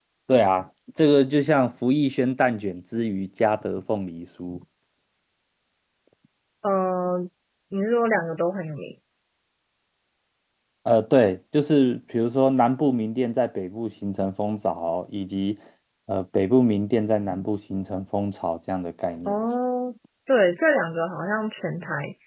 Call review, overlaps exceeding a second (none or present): none